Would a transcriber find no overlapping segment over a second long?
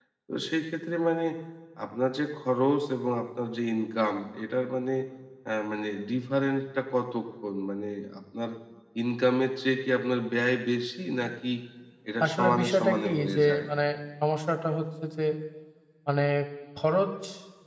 No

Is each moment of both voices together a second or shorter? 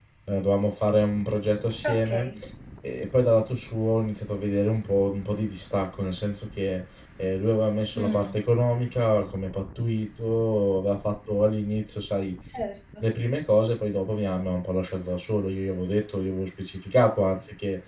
Yes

